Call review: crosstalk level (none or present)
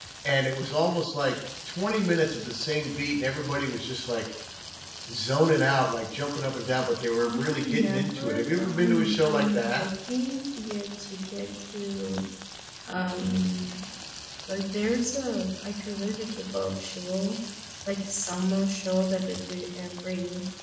present